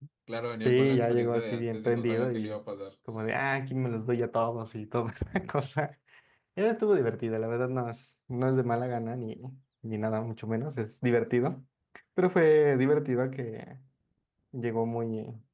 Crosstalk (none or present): present